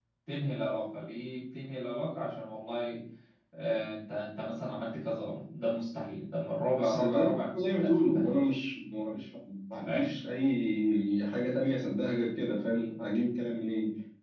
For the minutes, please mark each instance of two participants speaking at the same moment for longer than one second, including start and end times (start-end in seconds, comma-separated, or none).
6.8-8.3